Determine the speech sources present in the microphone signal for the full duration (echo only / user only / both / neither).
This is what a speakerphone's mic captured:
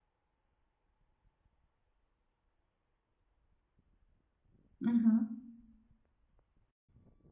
user only